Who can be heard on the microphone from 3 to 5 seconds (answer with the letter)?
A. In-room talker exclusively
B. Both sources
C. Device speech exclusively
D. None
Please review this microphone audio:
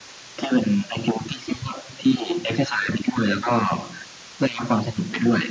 C